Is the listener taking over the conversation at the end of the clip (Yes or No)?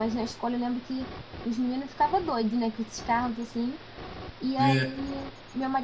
No